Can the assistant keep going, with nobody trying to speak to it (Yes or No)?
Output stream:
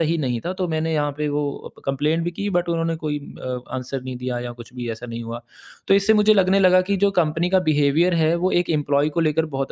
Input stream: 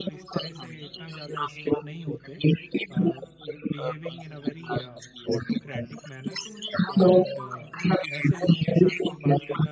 No